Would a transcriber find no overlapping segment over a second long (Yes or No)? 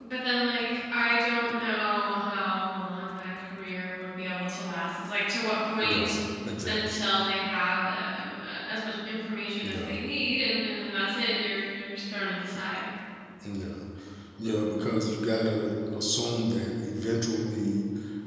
Yes